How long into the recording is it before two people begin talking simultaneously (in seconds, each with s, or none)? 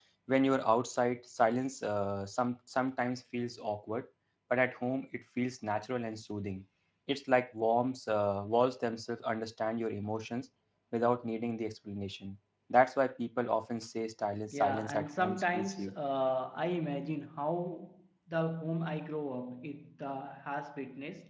14.5 s